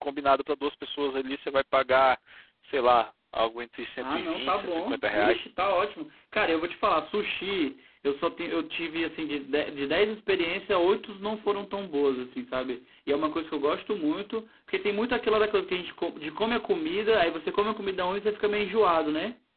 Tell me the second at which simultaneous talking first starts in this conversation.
4.0 s

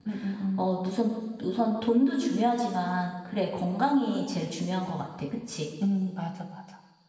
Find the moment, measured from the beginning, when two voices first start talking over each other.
none

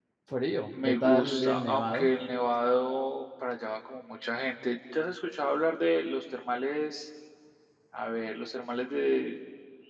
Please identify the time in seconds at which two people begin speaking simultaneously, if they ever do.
0.8 s

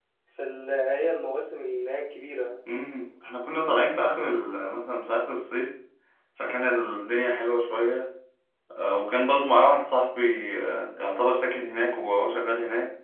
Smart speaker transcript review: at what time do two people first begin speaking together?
none

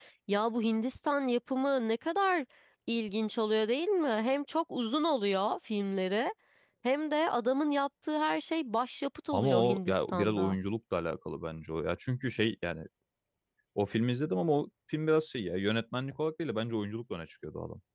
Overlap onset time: 9.3 s

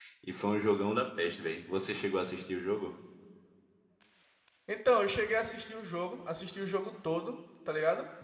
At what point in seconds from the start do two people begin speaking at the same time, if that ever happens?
none

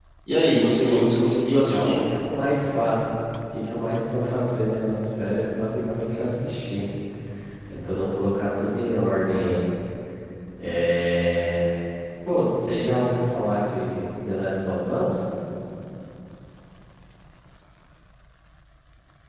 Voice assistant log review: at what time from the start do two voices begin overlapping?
0.8 s

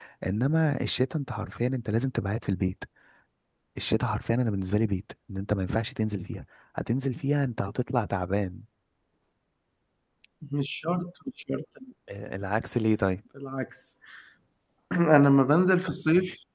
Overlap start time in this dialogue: none

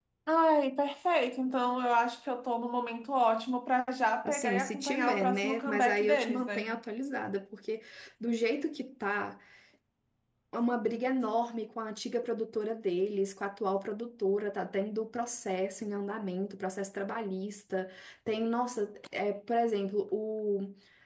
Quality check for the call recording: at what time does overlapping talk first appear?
4.2 s

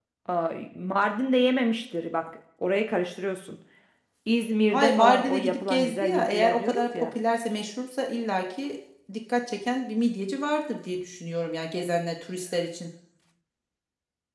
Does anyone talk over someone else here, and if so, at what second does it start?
4.7 s

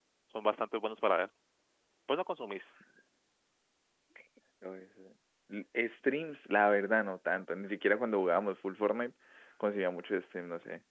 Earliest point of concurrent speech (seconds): none

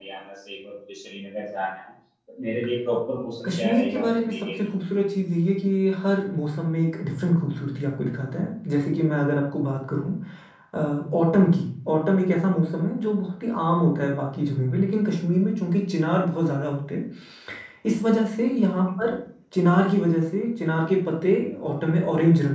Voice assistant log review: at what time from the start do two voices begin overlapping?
3.5 s

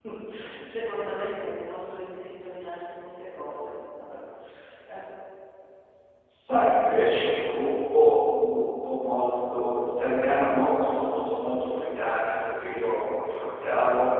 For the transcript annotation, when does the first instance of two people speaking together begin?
none

